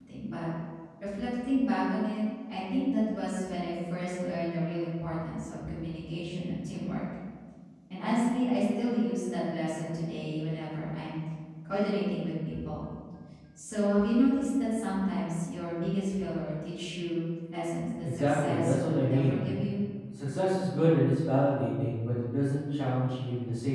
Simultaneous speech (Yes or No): Yes